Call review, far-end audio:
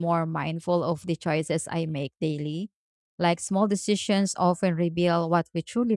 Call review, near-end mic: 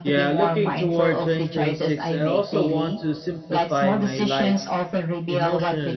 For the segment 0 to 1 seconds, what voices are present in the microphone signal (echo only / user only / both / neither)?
both